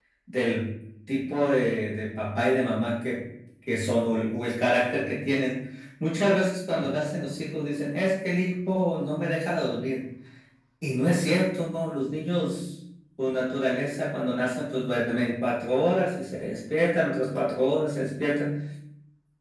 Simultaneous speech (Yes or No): No